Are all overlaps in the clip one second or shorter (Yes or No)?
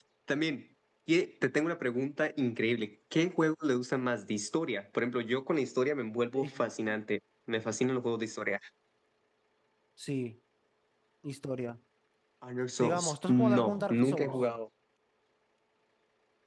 No